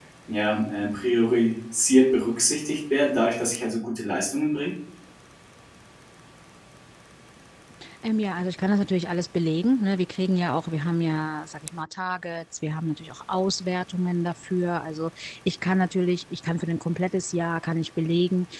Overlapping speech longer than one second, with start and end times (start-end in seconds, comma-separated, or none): none